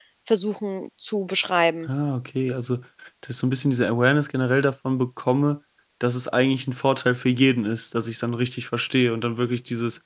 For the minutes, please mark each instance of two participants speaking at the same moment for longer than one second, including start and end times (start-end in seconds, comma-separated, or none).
none